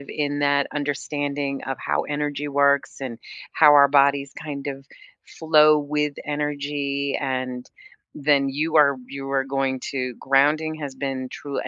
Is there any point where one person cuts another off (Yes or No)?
No